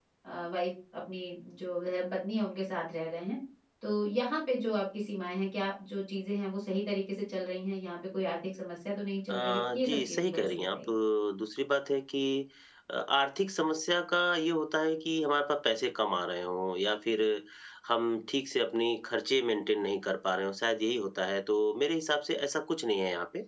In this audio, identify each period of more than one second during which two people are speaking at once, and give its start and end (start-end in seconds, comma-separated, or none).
9.3-10.8